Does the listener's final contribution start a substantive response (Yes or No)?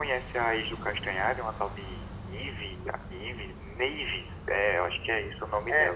Yes